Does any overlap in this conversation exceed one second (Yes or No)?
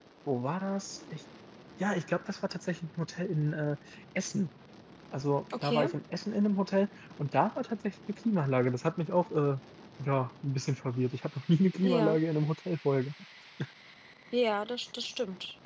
No